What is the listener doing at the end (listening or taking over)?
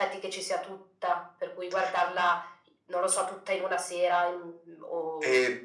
taking over